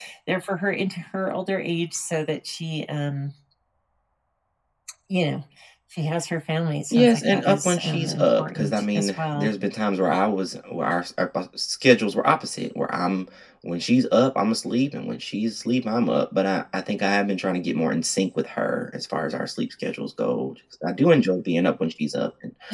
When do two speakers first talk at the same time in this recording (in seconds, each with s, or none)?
6.9 s